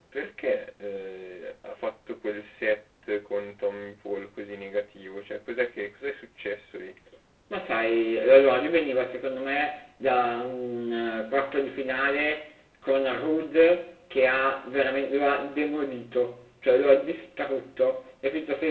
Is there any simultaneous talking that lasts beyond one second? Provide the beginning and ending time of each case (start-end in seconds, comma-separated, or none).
none